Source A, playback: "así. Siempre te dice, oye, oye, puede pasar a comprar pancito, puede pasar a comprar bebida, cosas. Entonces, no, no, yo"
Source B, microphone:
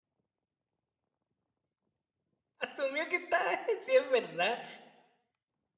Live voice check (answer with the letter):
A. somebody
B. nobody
A